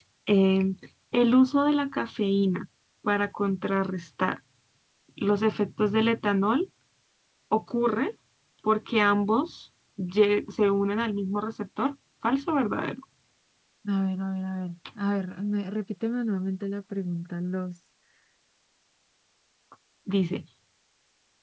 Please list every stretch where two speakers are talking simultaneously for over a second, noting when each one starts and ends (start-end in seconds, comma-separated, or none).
none